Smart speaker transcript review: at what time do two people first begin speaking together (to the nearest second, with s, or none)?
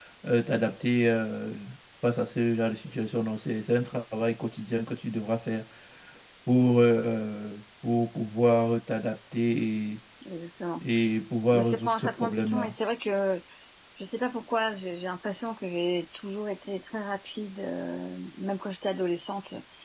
12 s